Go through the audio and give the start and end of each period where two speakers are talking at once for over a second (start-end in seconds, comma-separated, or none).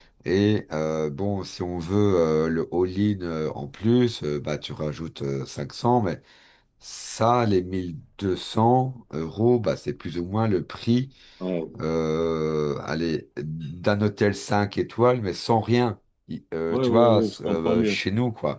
16.7-18.0